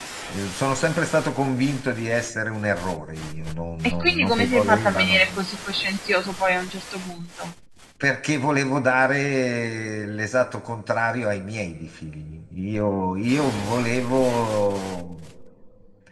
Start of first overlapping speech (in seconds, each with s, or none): 3.8 s